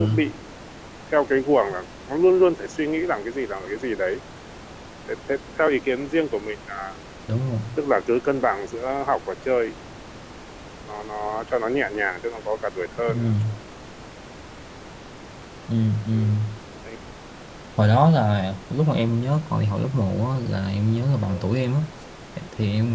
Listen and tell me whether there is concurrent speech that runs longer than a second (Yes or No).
No